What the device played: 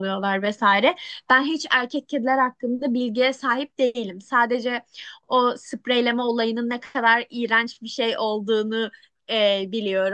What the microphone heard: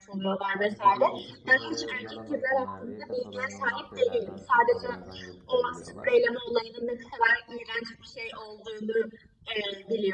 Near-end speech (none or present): present